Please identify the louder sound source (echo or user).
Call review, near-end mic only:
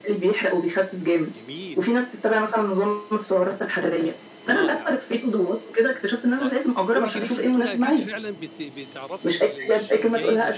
echo